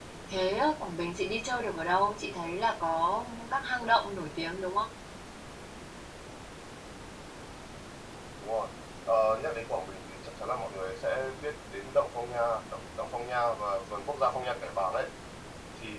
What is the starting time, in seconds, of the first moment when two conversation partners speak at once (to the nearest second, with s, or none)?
none